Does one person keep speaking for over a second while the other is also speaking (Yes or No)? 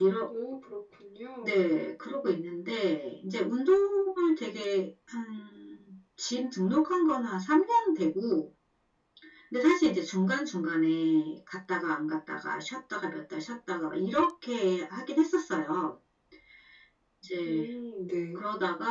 No